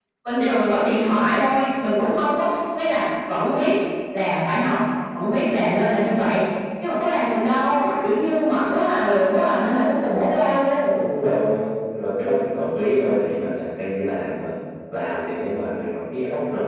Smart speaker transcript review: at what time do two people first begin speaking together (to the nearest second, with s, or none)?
none